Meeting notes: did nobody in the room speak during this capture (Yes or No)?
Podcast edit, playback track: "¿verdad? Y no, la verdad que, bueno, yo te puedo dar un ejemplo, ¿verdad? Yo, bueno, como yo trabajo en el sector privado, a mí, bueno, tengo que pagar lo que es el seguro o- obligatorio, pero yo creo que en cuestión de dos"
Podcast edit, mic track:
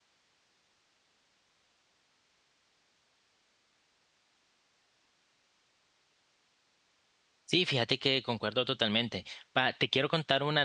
No